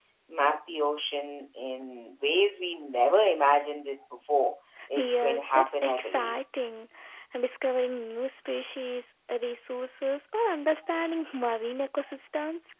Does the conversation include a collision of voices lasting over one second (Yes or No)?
Yes